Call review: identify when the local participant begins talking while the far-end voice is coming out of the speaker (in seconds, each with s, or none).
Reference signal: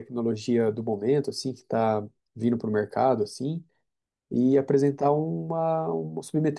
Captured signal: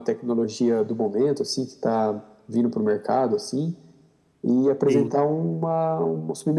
4.9 s